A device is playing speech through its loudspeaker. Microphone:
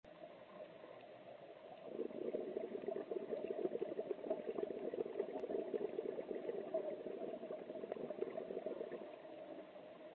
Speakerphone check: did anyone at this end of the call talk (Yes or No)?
No